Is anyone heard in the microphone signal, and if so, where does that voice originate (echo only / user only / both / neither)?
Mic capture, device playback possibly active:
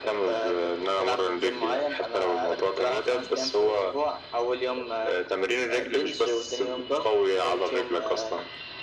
echo only